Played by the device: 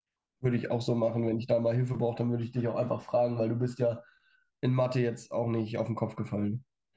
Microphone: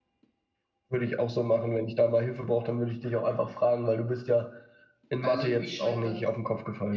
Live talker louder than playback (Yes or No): No